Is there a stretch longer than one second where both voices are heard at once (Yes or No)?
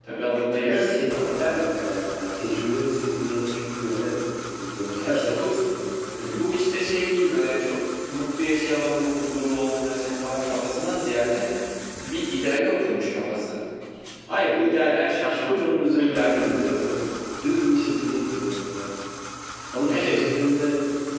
Yes